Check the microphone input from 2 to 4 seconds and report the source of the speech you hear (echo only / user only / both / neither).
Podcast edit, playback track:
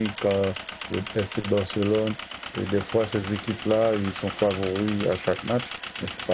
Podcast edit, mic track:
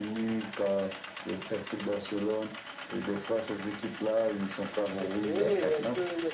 echo only